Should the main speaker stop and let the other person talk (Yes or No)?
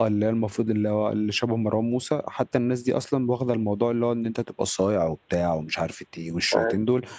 Yes